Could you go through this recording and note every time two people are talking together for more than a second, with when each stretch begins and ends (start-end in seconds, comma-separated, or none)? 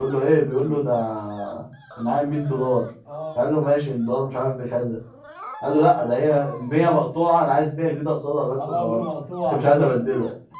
none